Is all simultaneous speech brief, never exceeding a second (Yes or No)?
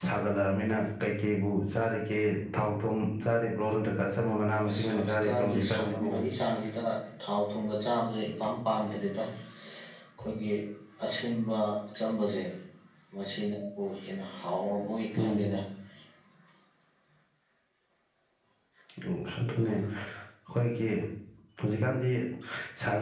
No